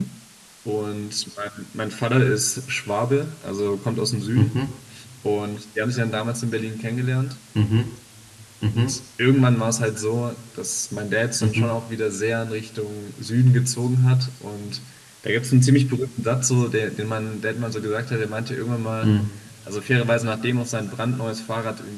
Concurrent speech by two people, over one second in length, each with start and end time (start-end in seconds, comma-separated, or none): none